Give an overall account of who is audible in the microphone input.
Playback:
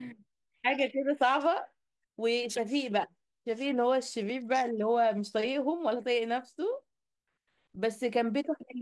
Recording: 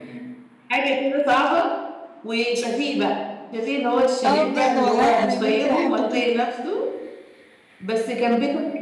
both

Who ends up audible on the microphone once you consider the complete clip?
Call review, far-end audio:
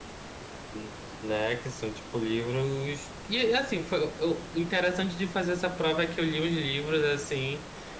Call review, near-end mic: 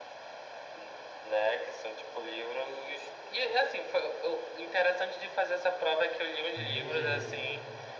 both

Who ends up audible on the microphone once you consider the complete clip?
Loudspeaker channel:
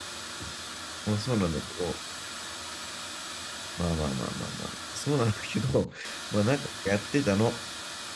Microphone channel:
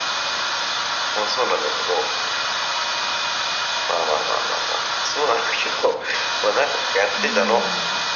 both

